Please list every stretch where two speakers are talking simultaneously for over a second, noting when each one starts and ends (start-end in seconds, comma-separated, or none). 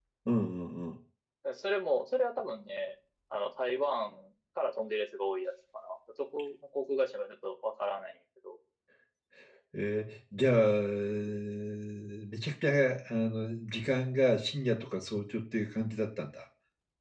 none